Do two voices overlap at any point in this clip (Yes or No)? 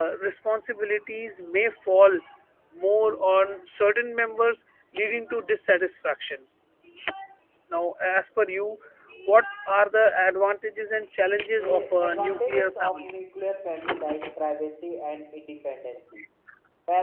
Yes